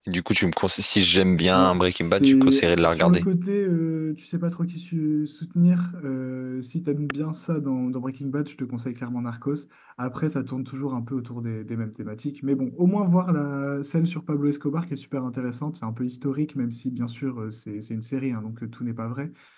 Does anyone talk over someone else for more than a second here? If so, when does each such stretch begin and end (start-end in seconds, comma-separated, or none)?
1.6-3.2